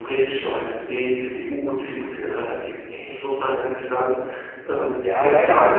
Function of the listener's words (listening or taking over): taking over